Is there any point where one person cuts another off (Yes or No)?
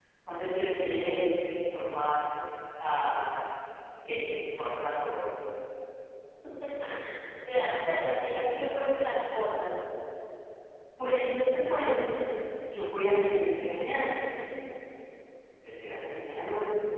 No